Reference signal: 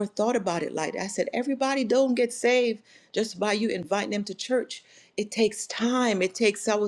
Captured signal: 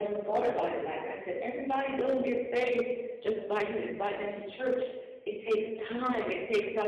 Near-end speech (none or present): none